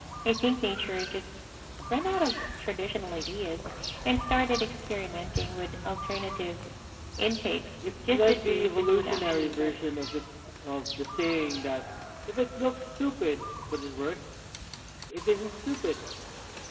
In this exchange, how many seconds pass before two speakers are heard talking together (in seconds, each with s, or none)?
8.0 s